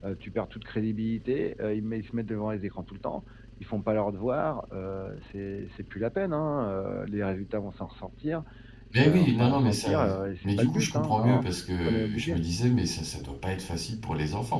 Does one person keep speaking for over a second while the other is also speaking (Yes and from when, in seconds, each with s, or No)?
Yes, from 9.0 s